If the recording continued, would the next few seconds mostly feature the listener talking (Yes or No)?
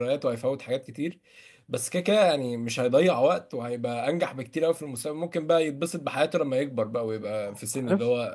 No